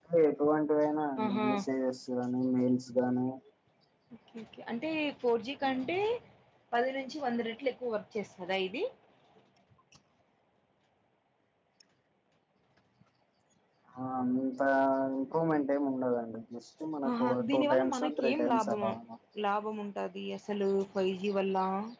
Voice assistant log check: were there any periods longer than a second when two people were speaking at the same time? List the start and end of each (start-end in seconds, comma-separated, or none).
17.1-18.8